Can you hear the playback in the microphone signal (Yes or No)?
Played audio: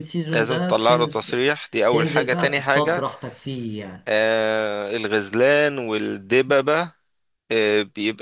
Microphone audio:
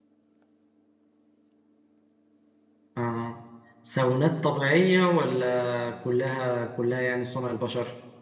No